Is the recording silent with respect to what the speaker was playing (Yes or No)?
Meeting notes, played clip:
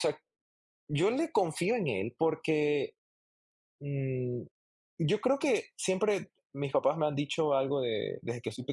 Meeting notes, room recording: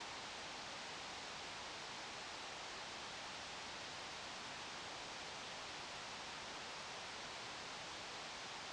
Yes